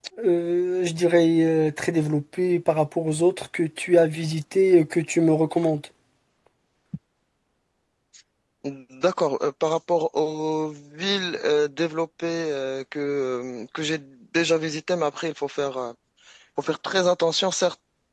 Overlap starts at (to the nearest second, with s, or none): none